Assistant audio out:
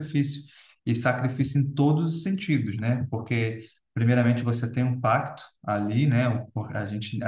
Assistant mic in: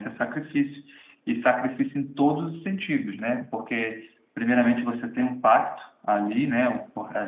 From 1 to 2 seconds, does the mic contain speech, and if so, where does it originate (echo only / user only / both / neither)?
echo only